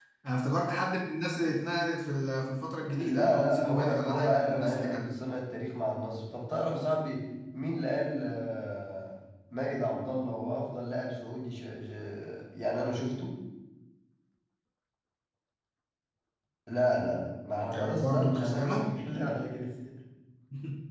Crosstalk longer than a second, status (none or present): present